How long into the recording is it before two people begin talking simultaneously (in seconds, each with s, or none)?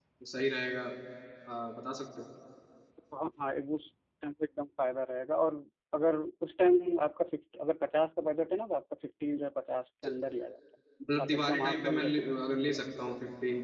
11.0 s